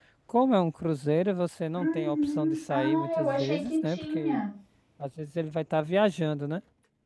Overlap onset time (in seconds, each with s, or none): 1.8 s